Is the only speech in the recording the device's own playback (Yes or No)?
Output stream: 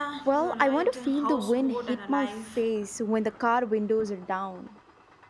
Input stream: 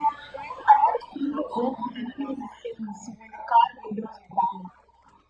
Yes